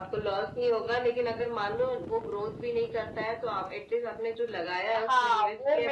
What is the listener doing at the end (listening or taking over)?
taking over